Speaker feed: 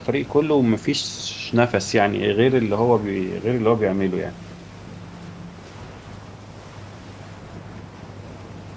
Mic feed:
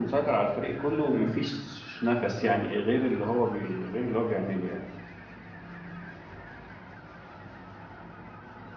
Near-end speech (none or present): none